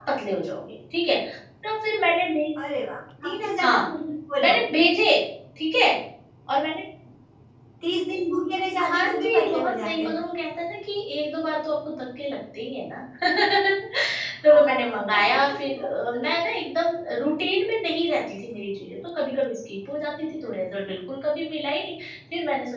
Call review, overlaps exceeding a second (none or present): present